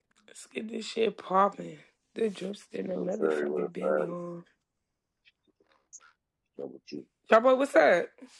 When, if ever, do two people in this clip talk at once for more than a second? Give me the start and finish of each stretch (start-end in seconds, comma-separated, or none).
2.9-4.1